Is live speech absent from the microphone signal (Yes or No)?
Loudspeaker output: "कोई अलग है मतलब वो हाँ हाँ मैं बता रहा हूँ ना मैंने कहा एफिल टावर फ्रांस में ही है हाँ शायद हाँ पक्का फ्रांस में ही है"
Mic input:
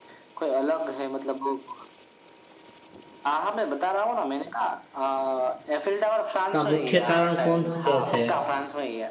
No